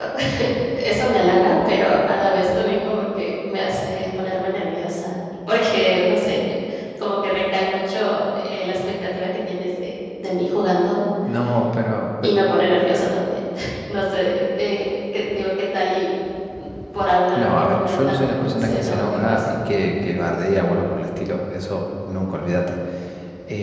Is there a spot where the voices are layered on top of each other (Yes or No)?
Yes